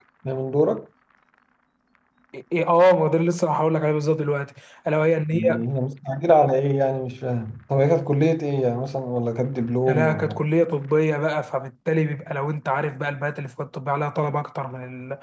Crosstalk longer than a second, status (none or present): none